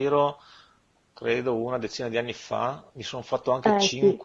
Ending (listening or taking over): listening